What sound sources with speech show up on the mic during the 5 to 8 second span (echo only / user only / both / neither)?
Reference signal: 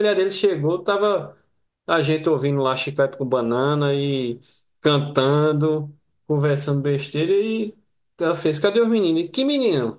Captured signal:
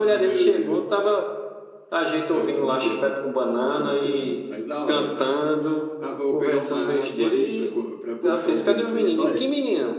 both